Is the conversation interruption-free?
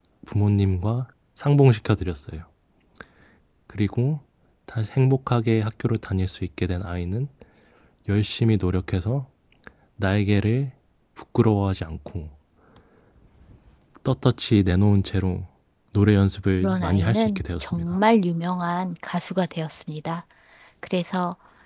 No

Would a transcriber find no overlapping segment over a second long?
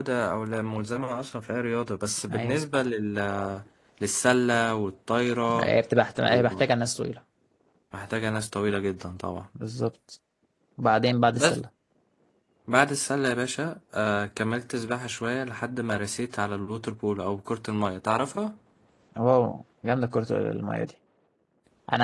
Yes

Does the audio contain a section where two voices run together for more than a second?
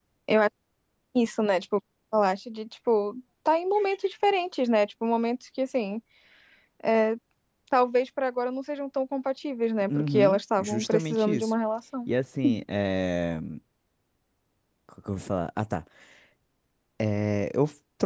Yes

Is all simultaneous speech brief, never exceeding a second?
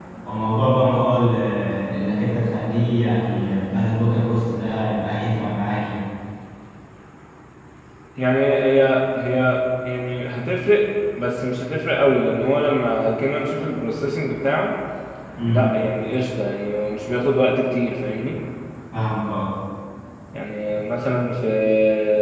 Yes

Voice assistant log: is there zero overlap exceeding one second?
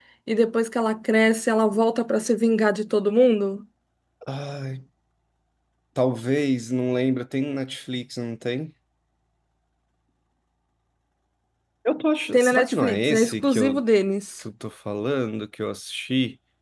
No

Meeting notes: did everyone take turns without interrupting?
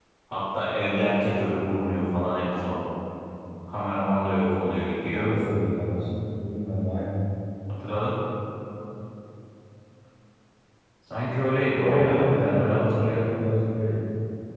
No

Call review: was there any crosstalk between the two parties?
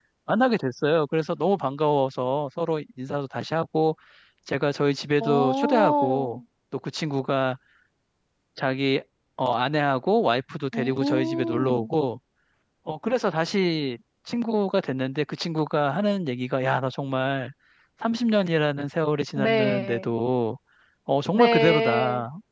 Yes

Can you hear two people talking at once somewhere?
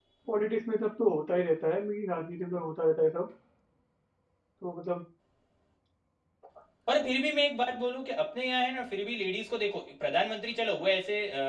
No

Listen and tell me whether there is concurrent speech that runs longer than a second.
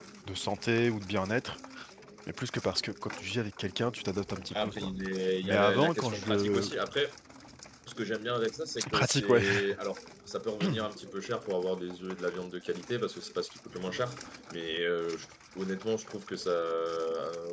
Yes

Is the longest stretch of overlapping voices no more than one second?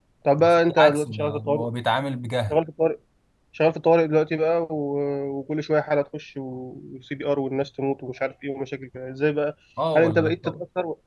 No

